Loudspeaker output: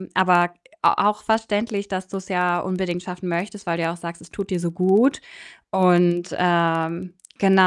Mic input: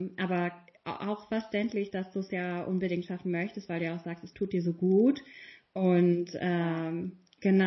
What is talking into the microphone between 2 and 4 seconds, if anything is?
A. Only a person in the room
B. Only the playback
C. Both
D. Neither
B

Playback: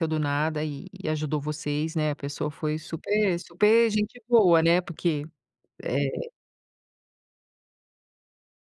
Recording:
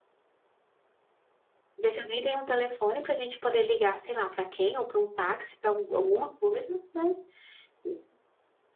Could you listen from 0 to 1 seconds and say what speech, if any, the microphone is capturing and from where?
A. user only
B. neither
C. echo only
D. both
B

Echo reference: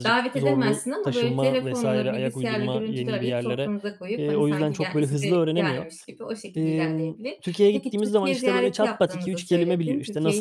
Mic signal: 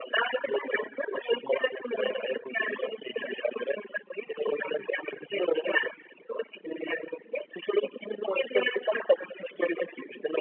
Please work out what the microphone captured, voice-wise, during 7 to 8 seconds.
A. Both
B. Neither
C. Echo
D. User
C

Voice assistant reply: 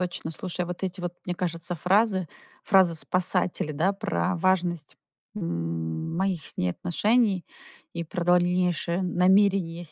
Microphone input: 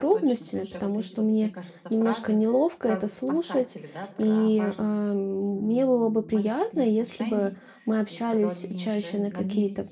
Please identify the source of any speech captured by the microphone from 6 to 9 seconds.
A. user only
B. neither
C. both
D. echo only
C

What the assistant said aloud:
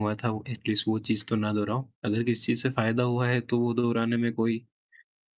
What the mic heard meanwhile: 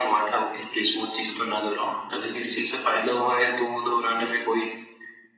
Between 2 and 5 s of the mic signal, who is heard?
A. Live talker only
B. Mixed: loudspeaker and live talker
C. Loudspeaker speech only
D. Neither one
C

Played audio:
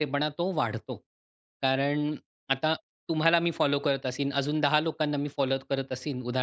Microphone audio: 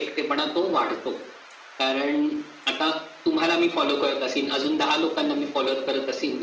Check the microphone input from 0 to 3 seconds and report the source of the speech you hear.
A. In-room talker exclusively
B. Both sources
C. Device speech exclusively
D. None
C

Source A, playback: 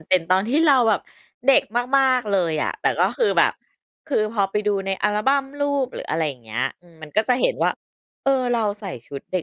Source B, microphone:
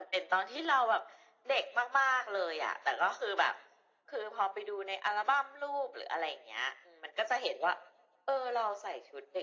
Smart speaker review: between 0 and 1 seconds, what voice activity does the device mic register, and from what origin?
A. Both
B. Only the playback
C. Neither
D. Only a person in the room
B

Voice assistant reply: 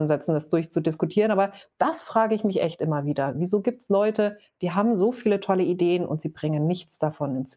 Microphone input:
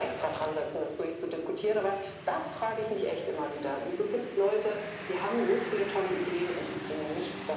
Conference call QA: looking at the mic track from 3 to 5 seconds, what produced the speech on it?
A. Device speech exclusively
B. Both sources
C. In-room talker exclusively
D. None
A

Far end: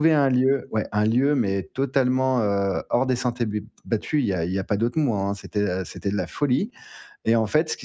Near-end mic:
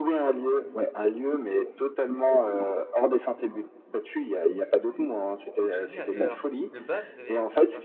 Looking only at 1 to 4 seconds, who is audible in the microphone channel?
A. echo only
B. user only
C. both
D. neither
A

